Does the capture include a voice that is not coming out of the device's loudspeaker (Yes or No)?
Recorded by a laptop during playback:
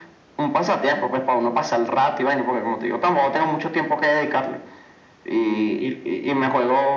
No